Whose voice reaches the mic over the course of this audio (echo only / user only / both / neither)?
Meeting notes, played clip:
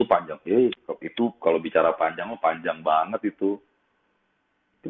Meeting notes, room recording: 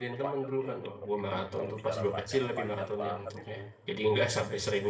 both